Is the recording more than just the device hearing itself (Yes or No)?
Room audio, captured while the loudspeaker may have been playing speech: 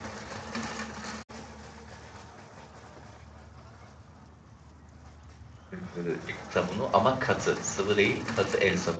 Yes